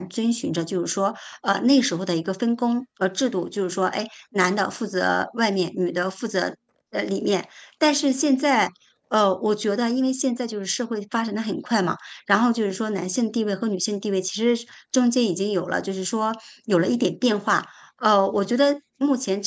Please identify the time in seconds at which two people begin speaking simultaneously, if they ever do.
none

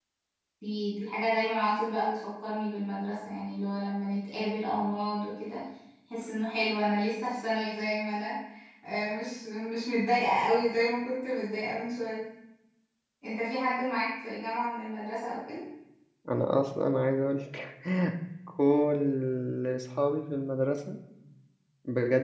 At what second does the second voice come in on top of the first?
none

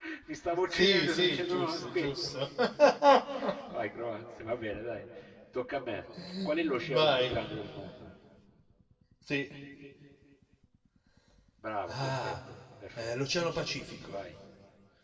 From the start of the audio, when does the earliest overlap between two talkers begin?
0.7 s

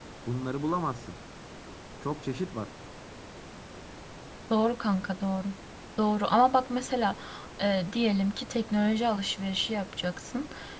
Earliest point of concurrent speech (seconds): none

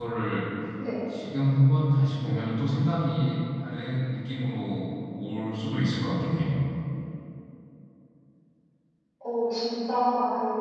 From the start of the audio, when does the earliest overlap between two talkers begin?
none

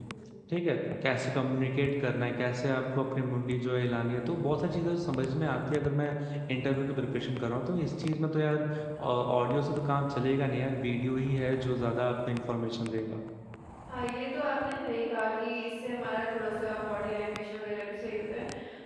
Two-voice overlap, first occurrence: none

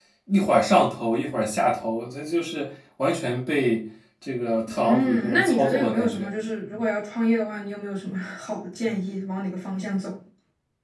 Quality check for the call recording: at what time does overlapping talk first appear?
4.7 s

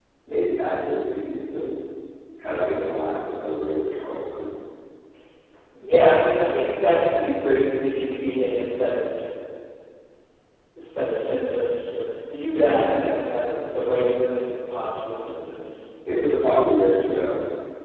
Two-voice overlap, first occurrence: none

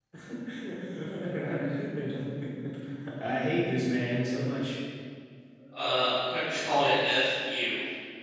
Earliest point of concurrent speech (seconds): none

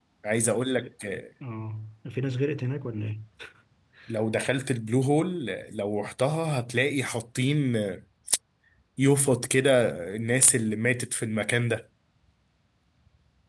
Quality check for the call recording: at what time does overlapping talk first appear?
none

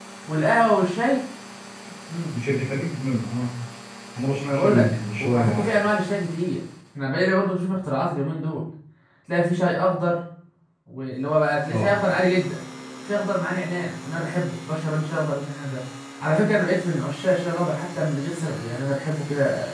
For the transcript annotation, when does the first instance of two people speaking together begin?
4.4 s

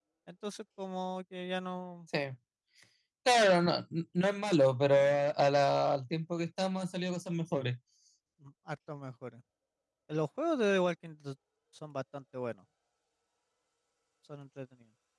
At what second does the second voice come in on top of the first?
none

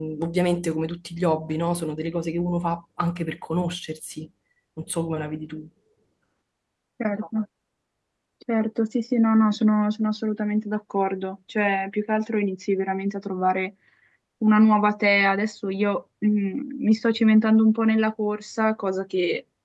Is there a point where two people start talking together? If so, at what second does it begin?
none

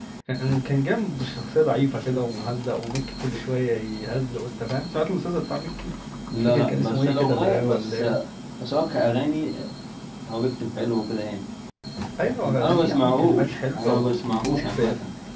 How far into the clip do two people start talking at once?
6.4 s

